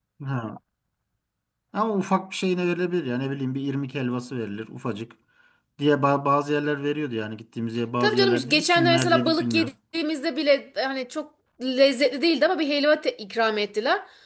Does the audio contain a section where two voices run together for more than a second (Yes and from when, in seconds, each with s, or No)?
Yes, from 8.0 s